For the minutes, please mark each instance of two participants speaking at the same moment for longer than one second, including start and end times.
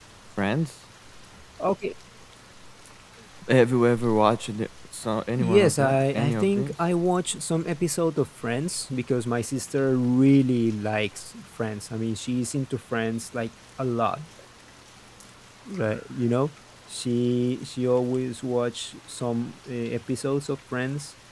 5.4-6.7

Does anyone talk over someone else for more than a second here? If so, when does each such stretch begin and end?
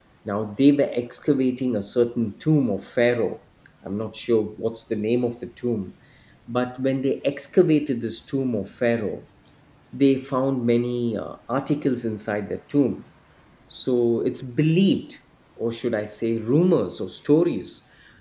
none

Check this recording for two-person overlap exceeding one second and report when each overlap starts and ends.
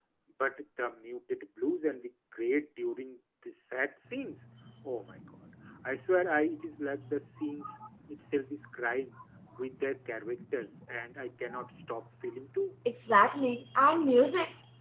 none

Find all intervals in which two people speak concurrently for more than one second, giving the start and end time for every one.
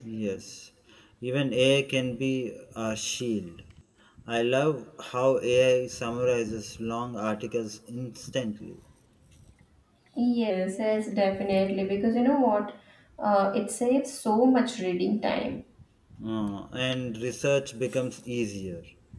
none

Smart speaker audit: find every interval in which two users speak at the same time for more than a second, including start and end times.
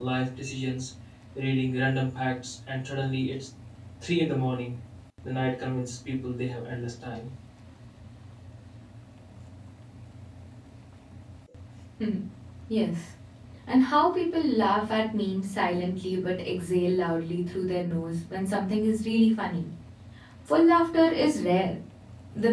none

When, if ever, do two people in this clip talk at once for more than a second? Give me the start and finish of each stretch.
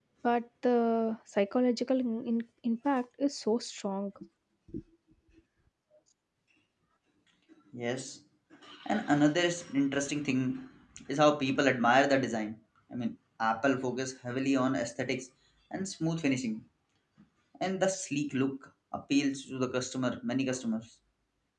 none

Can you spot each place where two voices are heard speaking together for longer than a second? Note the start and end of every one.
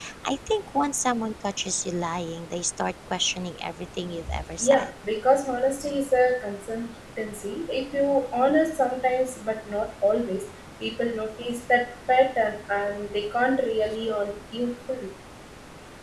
none

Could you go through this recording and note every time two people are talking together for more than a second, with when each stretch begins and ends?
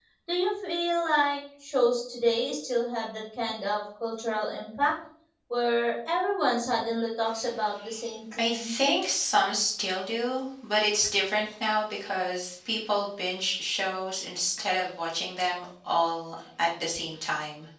none

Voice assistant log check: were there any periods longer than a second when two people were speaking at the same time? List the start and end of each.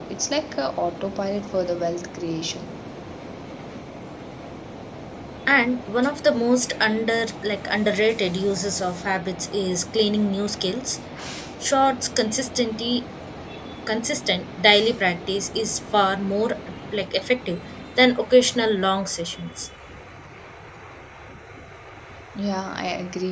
none

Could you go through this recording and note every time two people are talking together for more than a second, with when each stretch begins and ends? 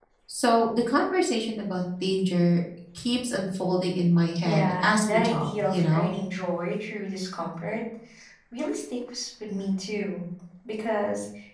4.4-6.1

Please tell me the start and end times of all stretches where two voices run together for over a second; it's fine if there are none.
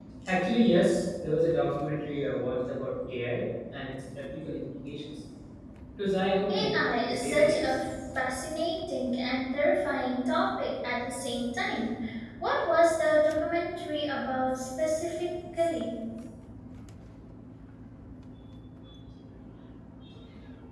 6.5-7.8

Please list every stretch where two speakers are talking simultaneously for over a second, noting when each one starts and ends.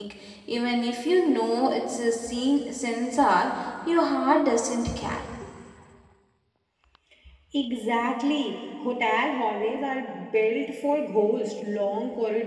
none

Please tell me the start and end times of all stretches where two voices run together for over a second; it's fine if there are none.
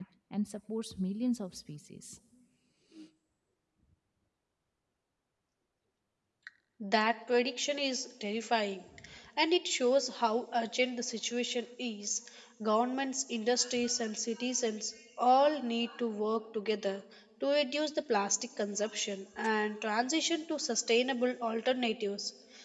none

